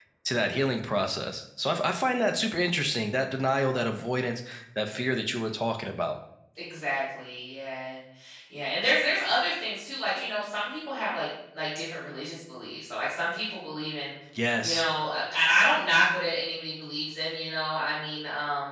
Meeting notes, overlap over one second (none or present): none